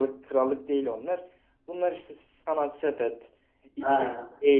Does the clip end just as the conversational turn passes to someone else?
No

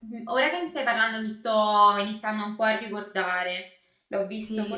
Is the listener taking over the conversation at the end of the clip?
Yes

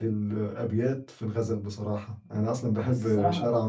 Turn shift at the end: No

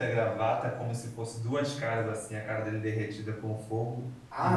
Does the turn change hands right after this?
Yes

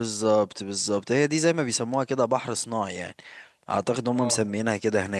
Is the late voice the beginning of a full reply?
No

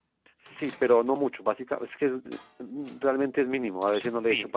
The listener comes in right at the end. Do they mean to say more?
Yes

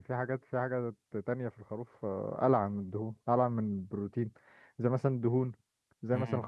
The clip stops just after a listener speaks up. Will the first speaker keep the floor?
Yes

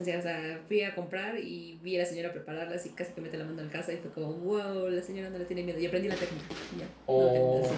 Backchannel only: No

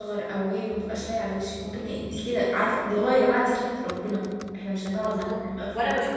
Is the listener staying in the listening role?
No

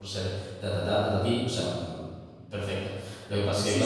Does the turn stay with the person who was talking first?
No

